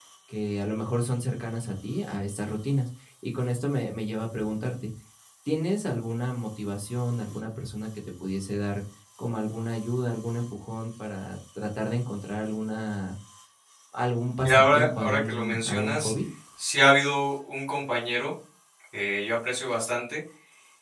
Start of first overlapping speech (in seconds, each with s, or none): 14.4 s